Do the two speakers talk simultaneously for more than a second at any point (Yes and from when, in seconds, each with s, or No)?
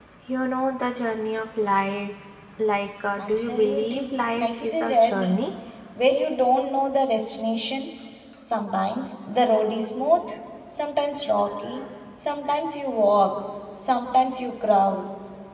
Yes, from 3.2 s